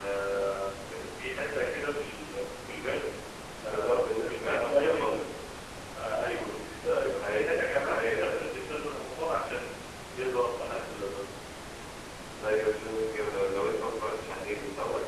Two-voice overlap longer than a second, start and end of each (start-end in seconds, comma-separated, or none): 3.7-5.1